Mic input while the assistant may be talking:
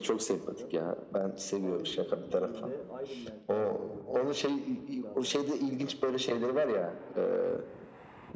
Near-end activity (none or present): present